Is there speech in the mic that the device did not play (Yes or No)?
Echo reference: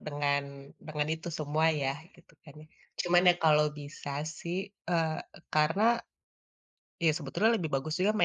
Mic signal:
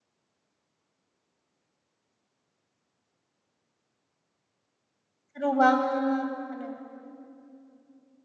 Yes